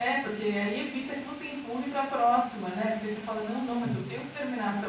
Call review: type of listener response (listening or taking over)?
listening